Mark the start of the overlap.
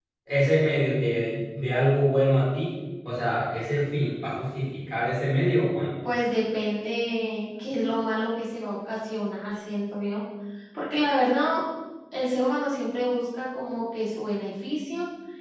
none

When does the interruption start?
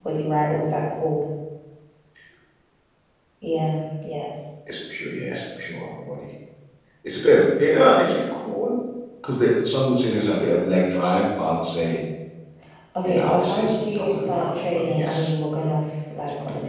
13.0 s

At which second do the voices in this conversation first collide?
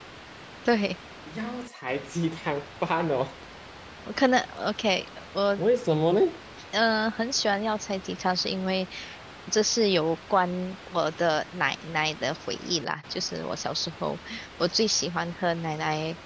none

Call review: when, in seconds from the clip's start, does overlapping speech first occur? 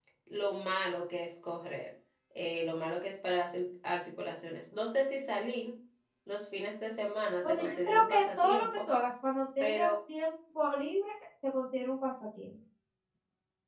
7.4 s

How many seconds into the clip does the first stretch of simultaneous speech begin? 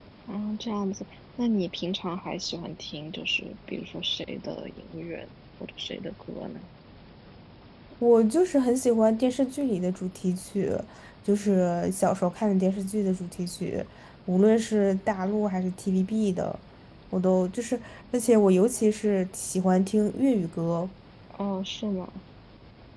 none

